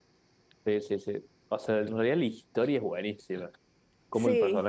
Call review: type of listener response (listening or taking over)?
listening